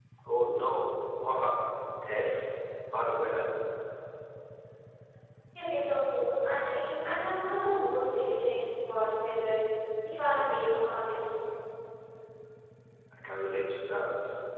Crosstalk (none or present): none